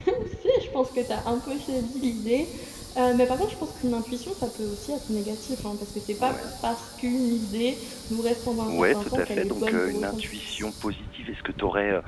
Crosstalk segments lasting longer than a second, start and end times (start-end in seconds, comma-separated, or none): 8.7-10.2